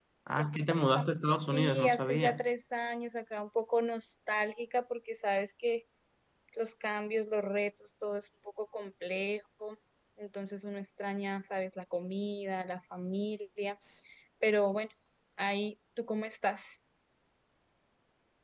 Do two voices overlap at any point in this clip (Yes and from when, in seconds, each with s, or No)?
Yes, from 1.1 s